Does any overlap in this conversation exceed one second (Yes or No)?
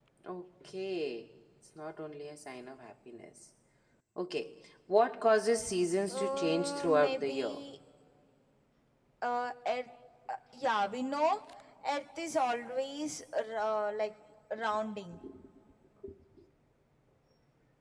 Yes